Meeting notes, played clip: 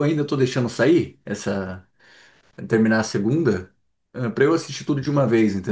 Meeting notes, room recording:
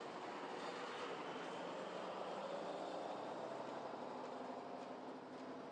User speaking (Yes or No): No